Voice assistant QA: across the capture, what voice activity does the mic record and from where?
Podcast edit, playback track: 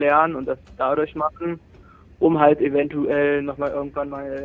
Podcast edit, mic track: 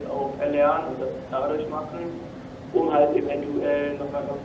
echo only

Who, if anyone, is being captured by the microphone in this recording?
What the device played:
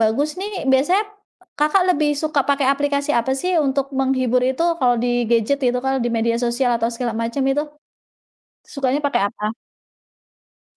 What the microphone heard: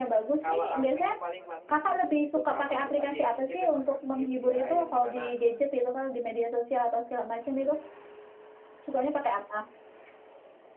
both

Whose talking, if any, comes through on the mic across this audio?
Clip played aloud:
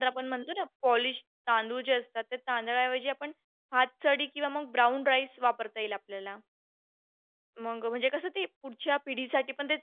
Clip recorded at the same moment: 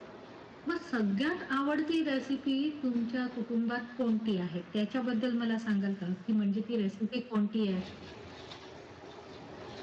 user only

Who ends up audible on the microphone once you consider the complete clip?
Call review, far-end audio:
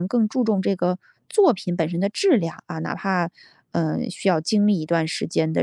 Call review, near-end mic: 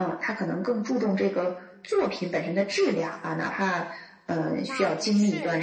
both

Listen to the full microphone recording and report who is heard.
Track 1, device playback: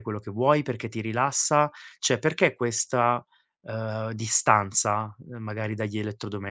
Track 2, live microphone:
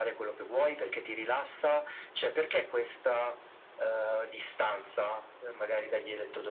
echo only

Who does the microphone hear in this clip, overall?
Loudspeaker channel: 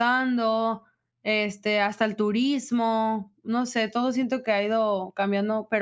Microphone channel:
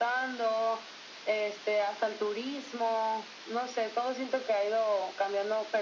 echo only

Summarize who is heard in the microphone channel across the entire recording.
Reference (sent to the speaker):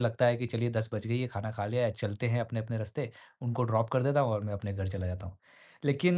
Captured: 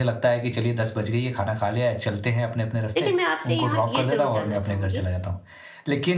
both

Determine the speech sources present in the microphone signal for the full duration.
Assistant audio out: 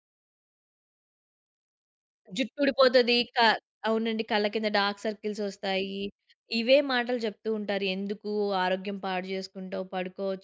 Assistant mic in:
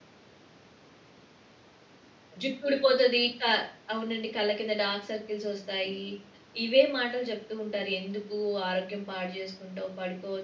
echo only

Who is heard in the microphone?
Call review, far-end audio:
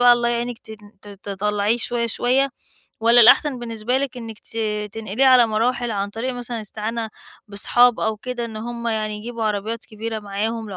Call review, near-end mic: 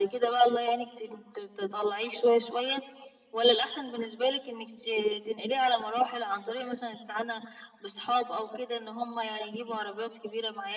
echo only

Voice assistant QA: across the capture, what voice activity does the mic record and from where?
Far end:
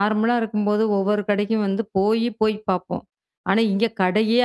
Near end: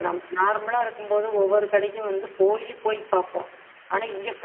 echo only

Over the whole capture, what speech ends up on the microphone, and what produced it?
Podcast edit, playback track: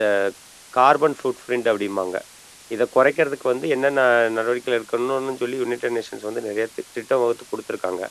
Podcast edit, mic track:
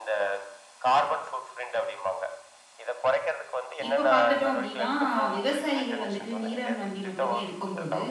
both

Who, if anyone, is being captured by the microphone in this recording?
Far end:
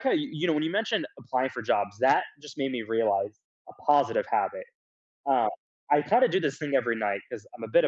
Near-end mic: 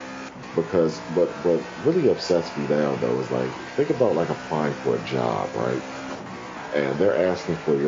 user only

